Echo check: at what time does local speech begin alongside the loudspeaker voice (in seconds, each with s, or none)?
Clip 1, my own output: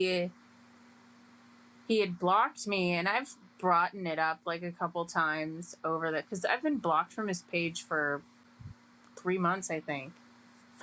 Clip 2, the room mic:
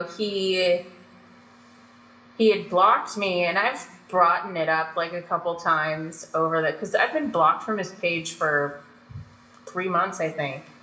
none